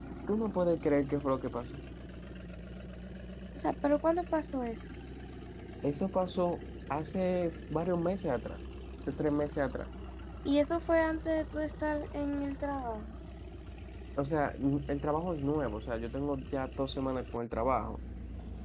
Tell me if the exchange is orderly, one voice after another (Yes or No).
Yes